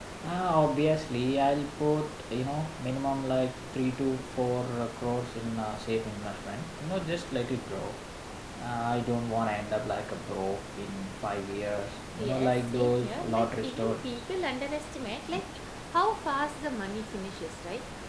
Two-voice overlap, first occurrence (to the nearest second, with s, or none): 12 s